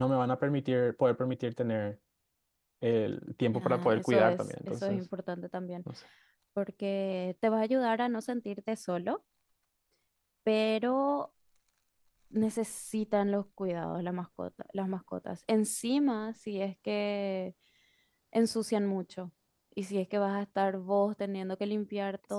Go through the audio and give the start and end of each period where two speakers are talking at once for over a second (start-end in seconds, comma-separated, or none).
3.6-5.0